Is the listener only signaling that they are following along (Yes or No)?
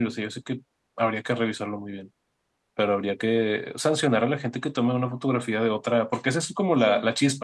Yes